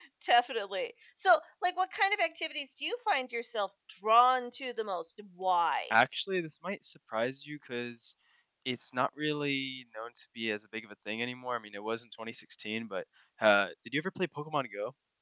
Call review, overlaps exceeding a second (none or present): none